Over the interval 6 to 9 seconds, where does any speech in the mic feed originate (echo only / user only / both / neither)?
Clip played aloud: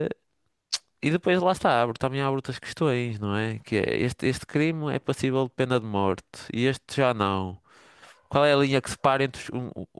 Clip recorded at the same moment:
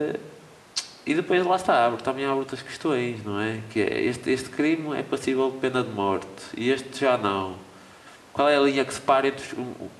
echo only